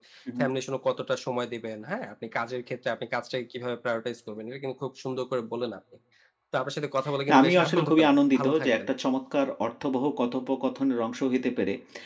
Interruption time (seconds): 7.3 s

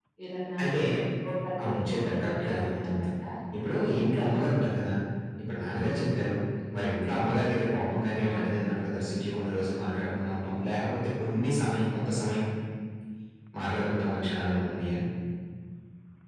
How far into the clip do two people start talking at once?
1.6 s

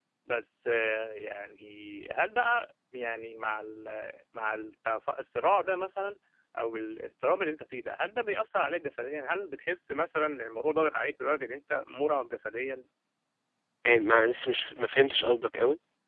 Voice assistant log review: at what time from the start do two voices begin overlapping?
none

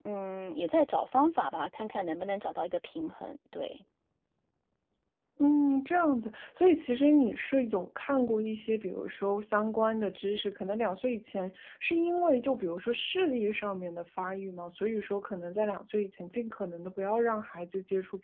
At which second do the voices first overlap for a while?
none

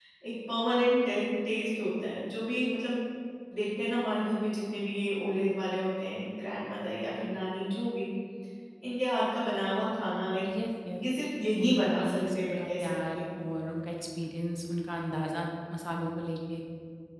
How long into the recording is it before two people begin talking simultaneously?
11.6 s

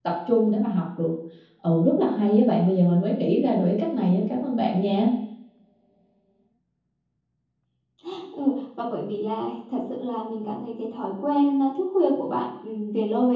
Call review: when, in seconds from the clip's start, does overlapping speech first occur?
none

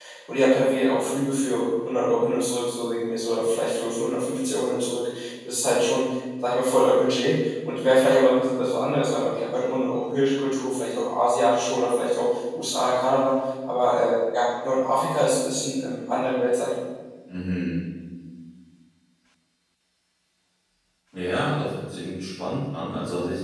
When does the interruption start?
none

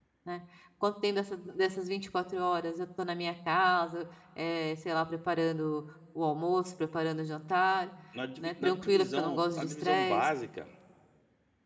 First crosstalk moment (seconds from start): 8.4 s

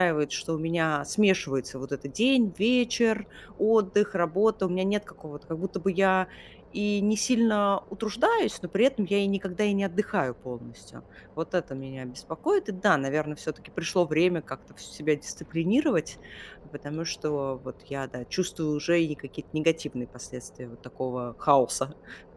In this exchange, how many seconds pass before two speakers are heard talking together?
none

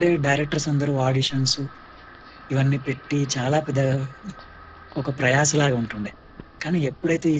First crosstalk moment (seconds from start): none

